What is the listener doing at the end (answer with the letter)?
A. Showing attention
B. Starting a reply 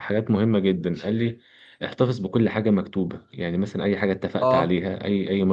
A